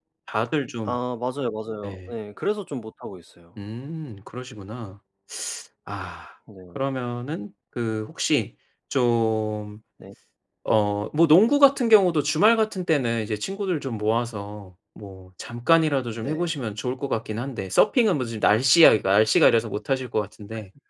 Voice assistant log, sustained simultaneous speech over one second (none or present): none